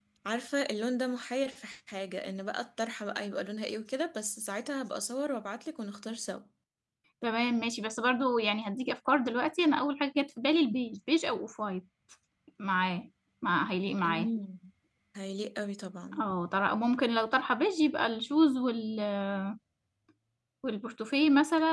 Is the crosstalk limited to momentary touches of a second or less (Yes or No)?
Yes